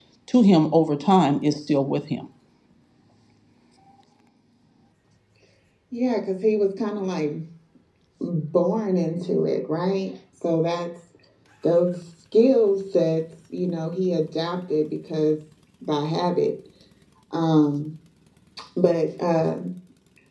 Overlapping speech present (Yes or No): No